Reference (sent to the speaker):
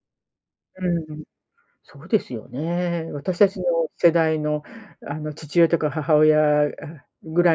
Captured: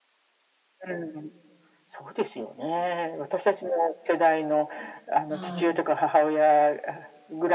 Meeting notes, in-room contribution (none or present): present